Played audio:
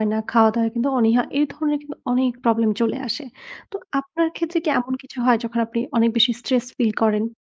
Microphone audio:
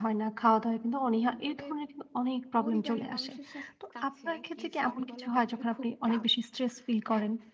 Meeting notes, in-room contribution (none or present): present